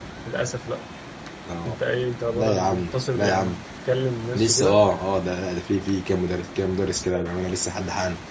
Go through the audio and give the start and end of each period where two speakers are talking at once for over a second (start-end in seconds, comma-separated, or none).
2.3-3.6